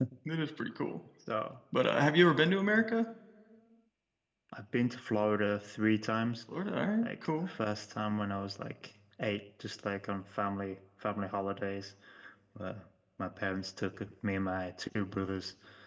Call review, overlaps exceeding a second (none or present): none